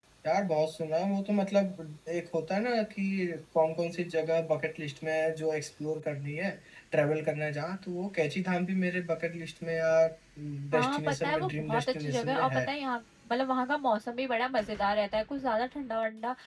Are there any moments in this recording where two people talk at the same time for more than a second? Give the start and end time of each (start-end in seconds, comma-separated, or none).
10.7-12.6